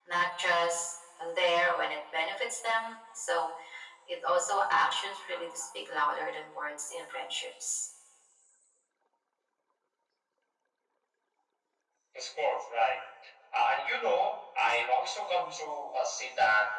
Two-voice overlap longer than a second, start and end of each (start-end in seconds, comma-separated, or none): none